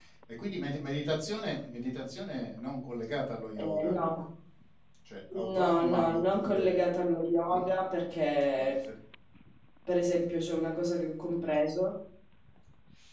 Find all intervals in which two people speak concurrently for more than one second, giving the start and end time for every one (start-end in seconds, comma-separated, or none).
5.3-6.8